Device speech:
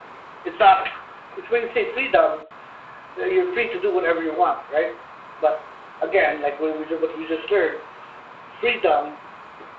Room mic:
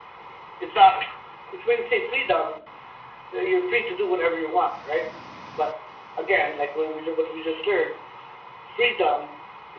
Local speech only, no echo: none

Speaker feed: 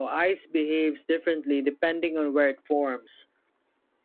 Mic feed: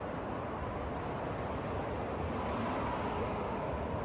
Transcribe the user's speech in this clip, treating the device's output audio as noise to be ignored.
none

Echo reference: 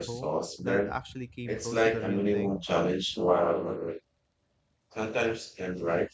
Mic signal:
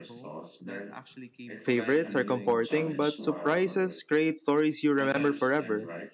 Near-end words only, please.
favorites are comforting, but surprises create stories you remember forever.

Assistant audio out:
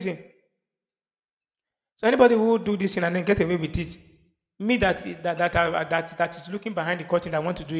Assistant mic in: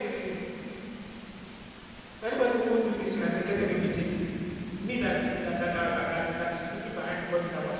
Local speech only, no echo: none

